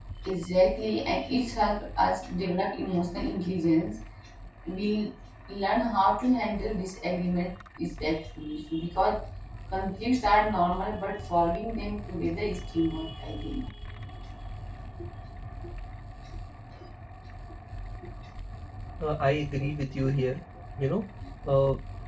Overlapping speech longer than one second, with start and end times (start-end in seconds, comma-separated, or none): none